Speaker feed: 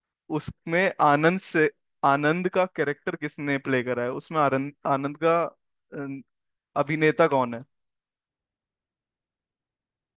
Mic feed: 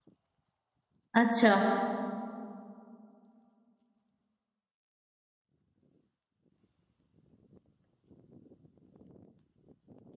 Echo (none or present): none